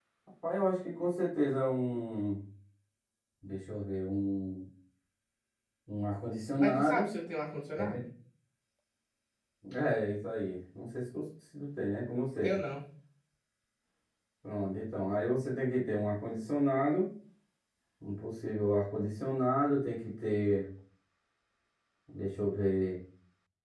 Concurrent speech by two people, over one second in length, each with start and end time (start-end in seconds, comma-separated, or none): none